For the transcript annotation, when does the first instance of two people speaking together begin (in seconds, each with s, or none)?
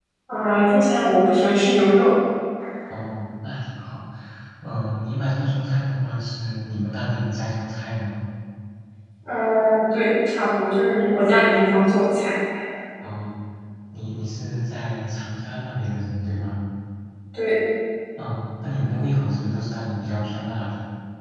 none